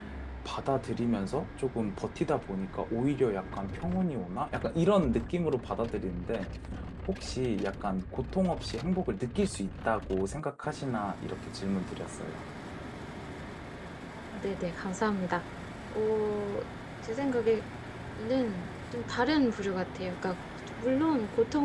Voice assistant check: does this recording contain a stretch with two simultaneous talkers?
No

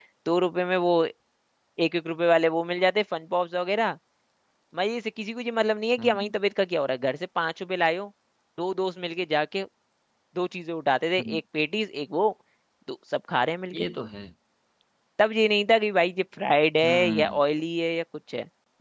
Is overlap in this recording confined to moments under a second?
Yes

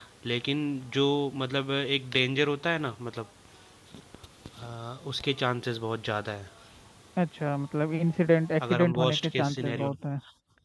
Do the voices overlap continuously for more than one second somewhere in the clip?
Yes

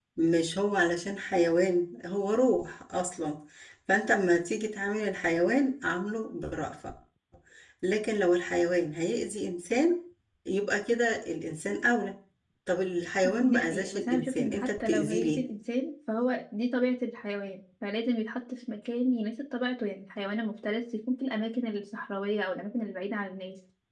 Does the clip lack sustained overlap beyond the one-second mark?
No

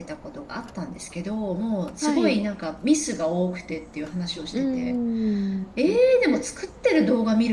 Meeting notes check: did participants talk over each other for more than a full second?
No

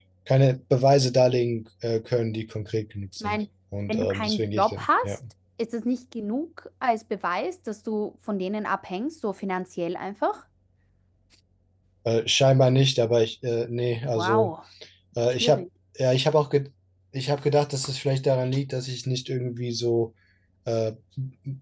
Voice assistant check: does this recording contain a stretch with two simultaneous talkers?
Yes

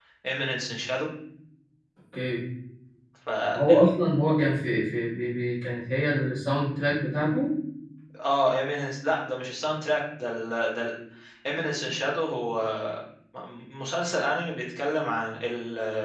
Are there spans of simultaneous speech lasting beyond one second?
No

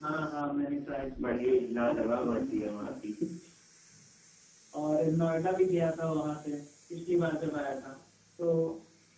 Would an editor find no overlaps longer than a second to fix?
No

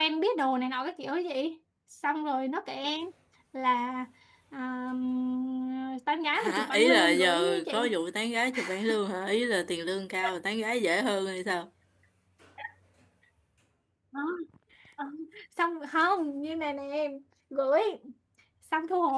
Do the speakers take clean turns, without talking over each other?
No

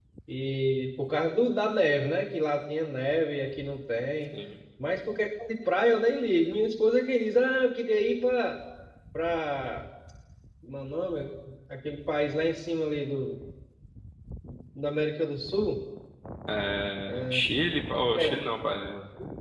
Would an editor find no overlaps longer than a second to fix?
Yes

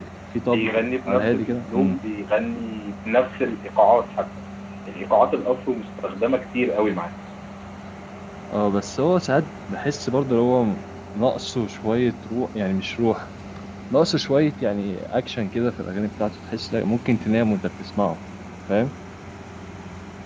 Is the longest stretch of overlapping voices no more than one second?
No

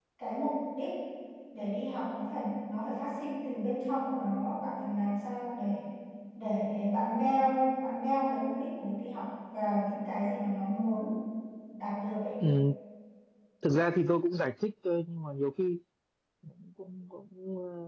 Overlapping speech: No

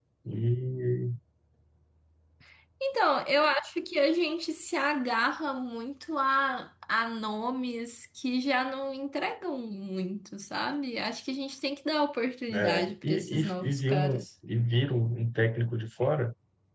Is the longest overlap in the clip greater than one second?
Yes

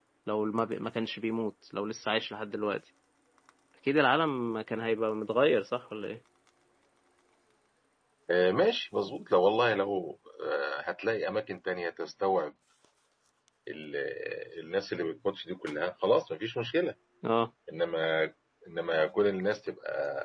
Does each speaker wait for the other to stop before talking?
Yes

